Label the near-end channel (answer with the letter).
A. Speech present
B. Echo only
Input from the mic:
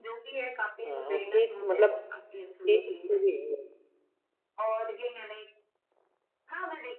A